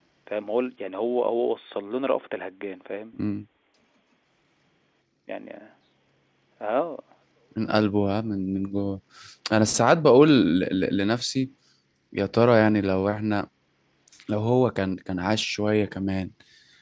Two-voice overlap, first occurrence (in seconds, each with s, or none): none